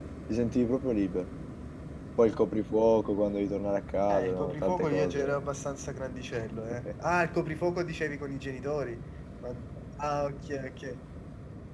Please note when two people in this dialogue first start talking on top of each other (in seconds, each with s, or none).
4.1 s